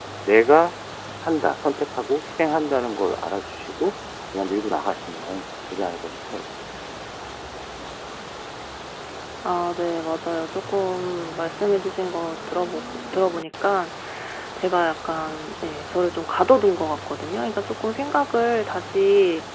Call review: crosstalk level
none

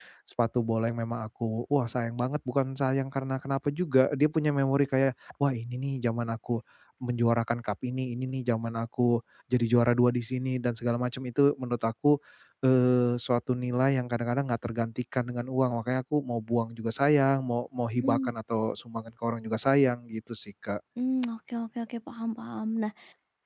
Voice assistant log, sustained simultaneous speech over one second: none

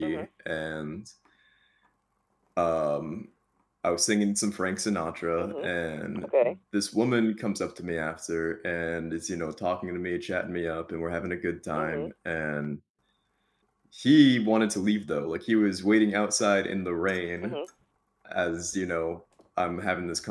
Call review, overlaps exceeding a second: none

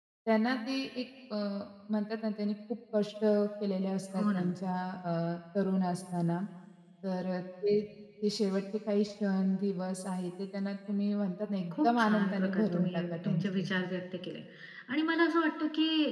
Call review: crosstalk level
present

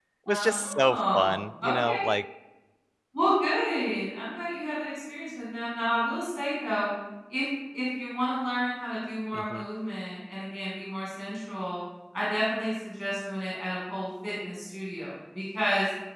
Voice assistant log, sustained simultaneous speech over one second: present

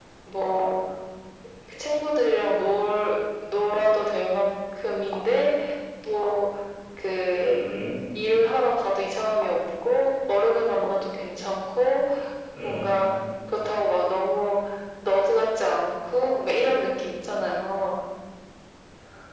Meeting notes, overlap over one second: none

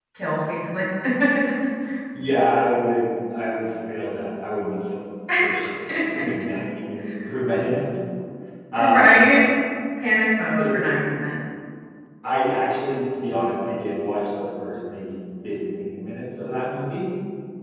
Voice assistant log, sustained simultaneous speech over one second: none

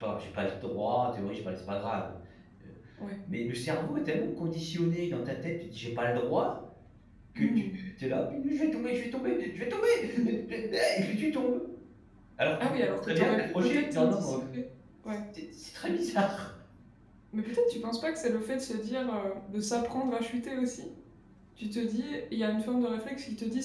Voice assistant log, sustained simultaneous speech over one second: present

